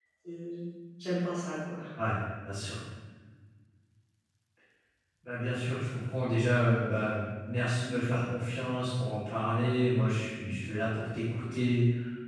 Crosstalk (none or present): none